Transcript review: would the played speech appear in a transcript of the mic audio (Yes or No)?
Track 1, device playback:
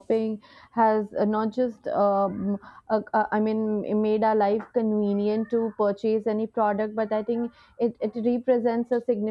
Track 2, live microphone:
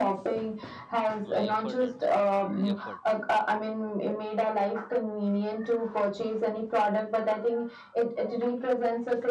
Yes